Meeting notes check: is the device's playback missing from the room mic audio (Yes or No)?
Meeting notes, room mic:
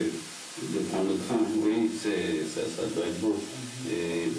No